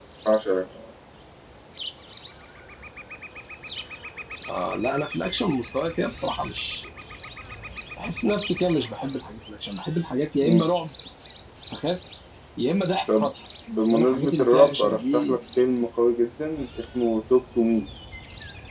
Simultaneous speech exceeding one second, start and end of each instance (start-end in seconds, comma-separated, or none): 13.9-15.4